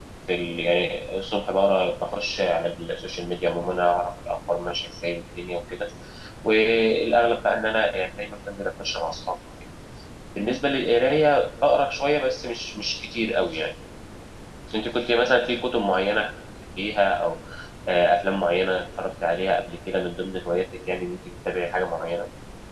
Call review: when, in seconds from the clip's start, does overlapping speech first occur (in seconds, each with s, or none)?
none